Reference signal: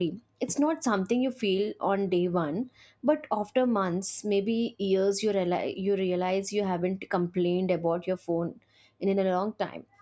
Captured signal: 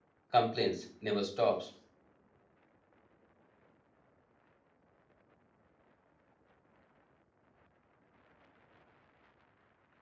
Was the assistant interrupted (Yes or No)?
Yes